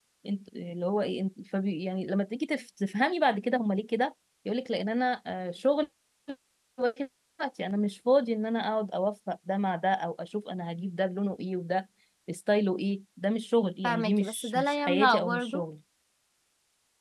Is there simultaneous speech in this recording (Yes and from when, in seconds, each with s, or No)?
Yes, from 13.8 s